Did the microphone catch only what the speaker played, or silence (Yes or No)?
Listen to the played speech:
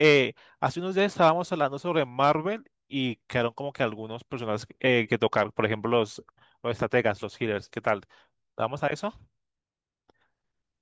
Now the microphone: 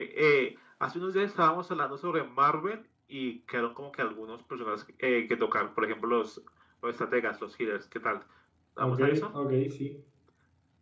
No